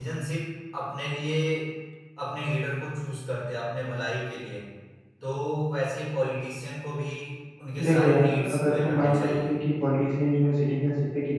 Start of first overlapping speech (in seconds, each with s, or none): 7.8 s